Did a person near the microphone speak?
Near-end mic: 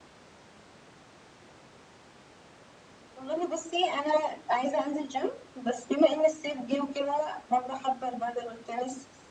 No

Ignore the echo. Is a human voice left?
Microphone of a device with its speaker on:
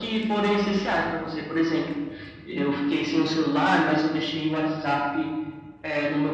No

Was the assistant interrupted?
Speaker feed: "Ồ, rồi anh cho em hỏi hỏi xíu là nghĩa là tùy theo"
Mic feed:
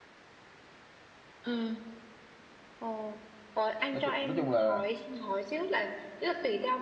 Yes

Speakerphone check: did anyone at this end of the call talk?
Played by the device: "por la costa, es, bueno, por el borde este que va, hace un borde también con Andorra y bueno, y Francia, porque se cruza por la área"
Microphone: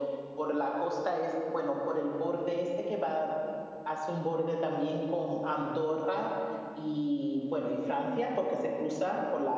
No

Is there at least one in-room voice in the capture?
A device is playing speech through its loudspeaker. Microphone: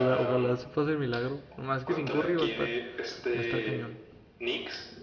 Yes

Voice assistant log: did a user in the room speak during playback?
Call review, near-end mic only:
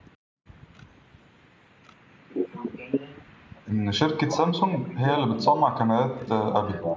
Yes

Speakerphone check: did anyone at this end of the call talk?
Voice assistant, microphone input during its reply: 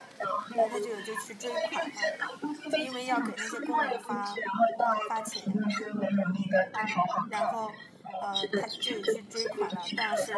Yes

